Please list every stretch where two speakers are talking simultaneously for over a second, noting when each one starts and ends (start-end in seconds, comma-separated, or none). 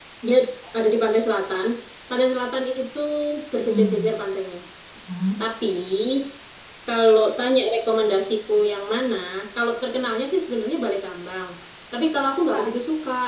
none